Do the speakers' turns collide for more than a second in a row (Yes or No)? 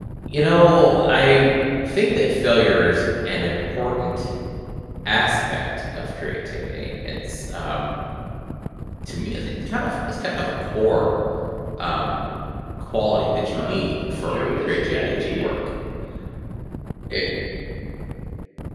Yes